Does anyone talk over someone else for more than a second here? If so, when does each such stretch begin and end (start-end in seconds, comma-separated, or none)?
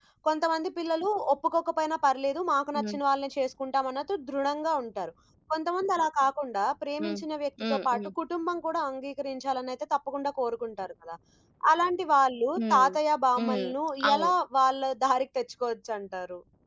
none